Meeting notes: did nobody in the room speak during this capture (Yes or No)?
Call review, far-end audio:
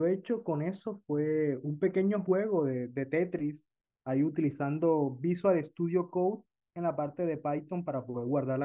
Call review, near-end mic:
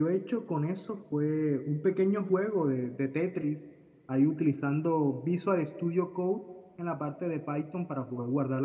Yes